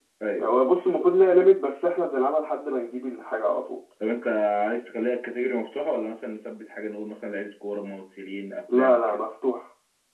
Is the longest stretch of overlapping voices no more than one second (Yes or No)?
Yes